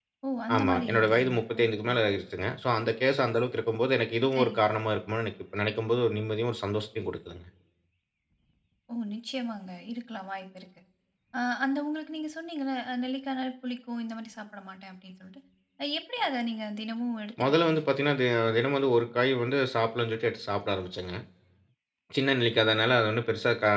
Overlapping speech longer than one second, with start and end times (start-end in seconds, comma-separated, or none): 0.6-1.9